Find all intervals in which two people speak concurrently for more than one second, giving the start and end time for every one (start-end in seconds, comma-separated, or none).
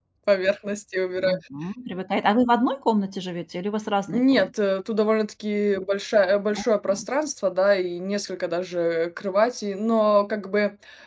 none